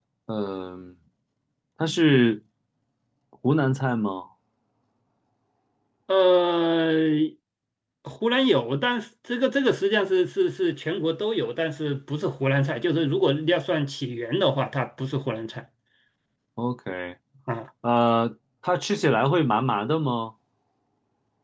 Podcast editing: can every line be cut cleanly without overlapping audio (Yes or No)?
Yes